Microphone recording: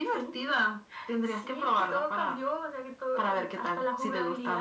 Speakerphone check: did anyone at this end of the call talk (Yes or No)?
No